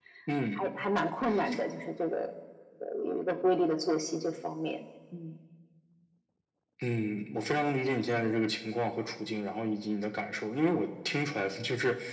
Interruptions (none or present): none